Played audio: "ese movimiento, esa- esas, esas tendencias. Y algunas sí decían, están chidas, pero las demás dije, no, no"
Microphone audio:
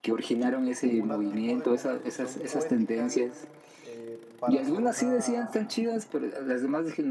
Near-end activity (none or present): present